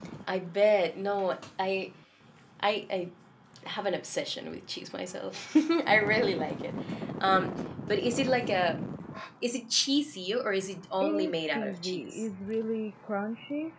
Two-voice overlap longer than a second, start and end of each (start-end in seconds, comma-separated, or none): 11.0-12.2